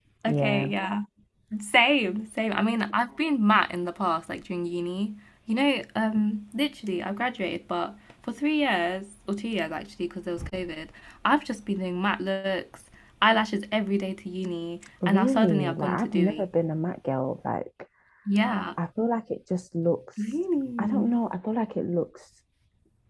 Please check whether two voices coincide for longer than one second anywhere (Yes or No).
Yes